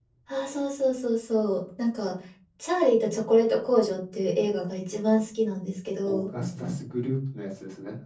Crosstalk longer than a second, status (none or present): none